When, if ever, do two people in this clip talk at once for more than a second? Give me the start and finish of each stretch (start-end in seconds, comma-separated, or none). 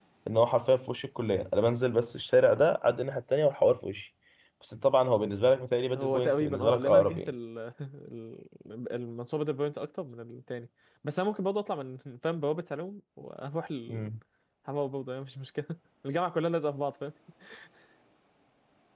6.0-7.3